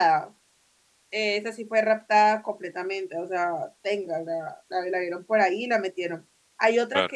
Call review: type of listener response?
listening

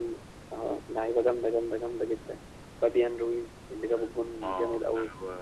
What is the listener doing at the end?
taking over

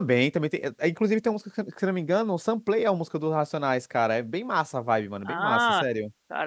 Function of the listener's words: taking over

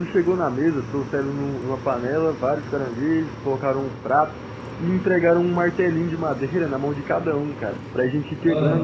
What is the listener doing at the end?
listening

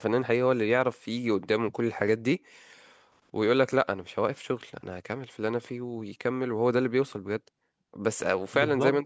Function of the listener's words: listening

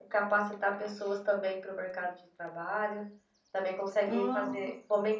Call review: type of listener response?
listening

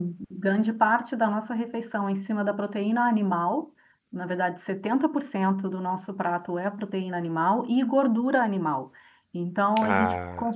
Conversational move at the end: listening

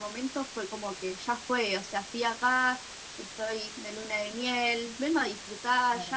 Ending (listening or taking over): listening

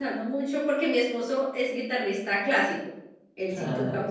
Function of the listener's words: listening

